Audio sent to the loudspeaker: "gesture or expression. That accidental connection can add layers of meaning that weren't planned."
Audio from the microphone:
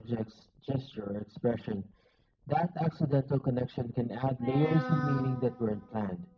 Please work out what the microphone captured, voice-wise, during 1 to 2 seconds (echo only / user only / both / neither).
echo only